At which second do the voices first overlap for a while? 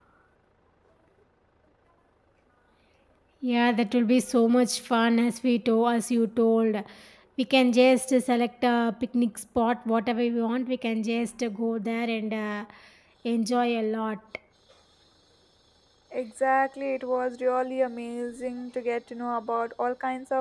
none

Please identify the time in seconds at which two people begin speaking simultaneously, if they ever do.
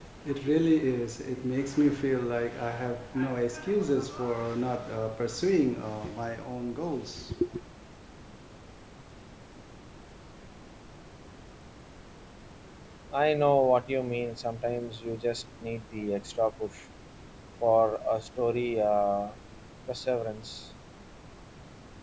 none

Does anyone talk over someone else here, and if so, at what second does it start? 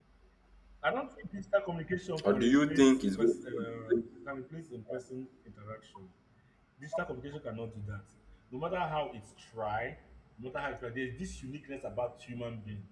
2 s

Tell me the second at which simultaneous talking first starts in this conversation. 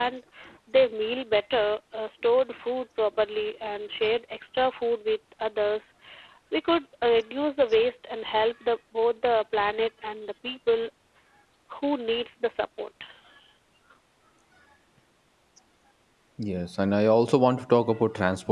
none

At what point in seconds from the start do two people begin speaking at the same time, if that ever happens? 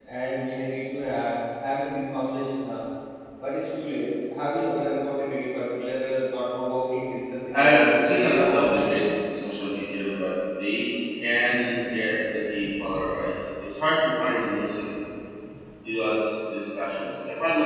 8 s

